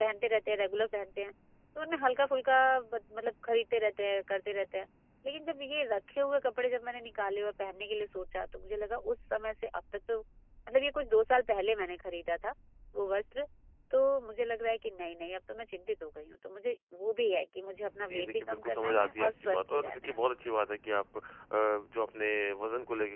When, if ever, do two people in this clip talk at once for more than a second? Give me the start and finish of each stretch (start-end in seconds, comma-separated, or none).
18.1-20.2